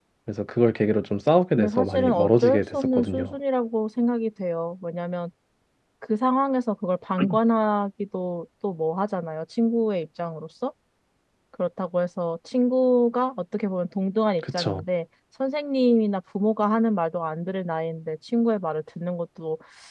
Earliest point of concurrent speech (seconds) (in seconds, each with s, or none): 1.6 s